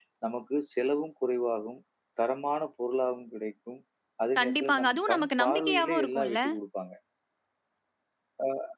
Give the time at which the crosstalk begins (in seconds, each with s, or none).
4.4 s